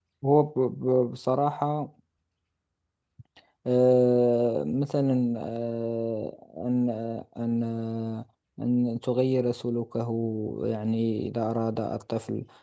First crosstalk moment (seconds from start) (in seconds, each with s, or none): none